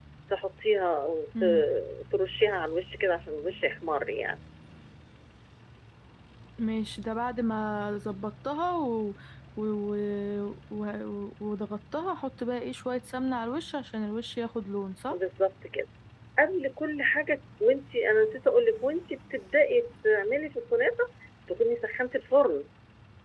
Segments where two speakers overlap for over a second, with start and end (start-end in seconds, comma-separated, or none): none